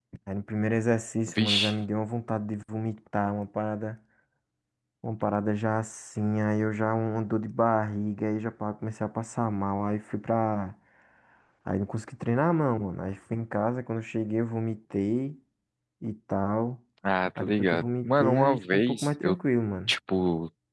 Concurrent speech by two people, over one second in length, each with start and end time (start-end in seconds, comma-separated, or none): 17.4-19.4